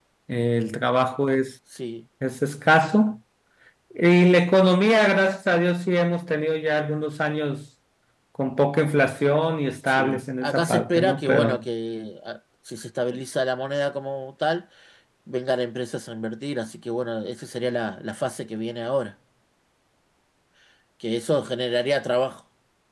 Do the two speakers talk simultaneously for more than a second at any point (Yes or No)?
Yes